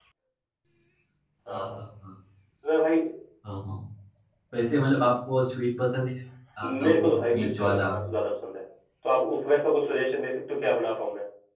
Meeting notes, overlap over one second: present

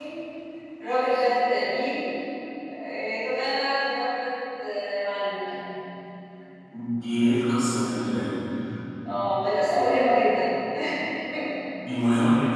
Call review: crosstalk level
none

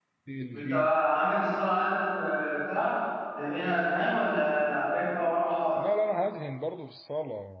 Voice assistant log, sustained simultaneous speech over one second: none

